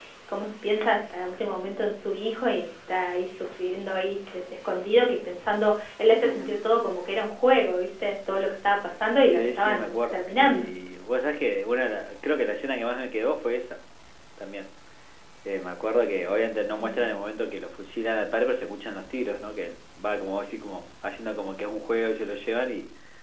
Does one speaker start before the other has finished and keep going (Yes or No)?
Yes